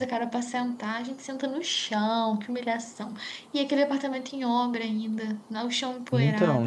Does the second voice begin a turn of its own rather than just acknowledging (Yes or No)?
Yes